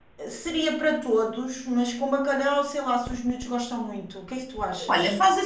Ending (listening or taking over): taking over